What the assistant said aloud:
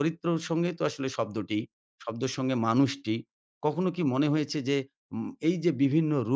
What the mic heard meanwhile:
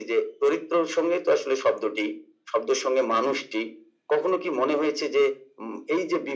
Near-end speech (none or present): none